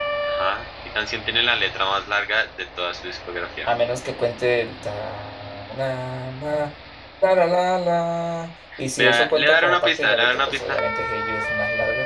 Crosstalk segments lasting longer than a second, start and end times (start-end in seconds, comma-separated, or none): 9.0-10.8